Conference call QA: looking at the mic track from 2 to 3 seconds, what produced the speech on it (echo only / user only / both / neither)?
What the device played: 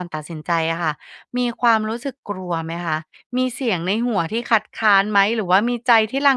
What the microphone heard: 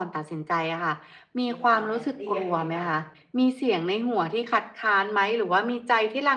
both